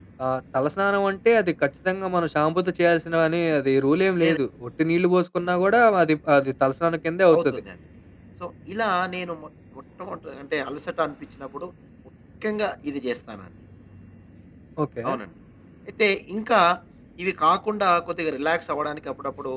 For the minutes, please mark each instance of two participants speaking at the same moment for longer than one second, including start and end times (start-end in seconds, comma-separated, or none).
none